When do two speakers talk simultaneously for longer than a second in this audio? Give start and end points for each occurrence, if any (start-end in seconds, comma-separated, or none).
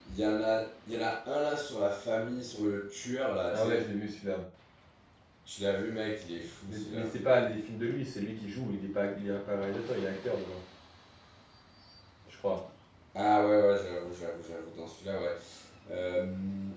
none